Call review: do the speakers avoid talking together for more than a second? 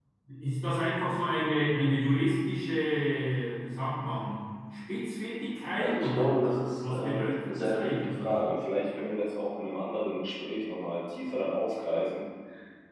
No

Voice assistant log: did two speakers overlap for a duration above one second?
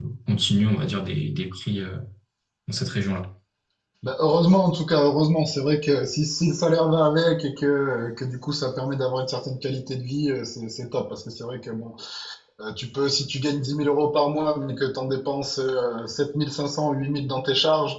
No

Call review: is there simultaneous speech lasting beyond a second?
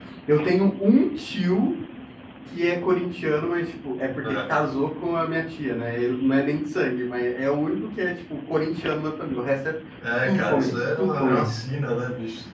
Yes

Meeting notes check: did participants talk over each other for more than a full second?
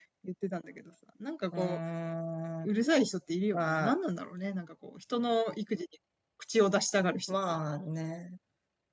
No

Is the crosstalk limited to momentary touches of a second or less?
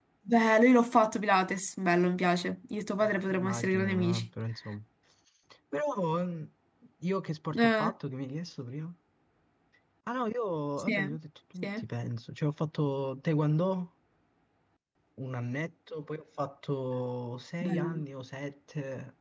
No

